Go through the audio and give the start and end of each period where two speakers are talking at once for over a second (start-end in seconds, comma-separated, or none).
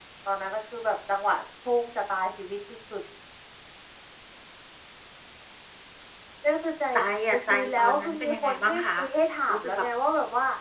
7.3-8.8